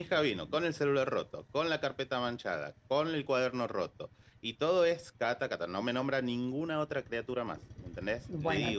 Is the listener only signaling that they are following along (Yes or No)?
No